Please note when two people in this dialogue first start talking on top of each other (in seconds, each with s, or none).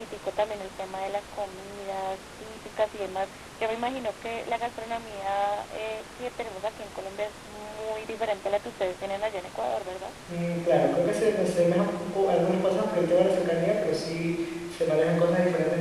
none